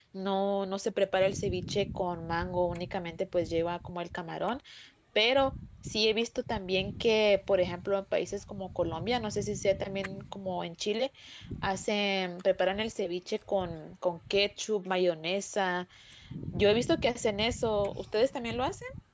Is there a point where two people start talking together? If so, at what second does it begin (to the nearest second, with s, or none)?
none